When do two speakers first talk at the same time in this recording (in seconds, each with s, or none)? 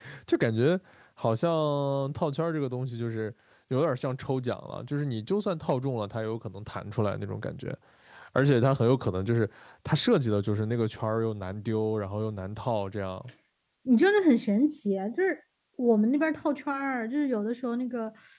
none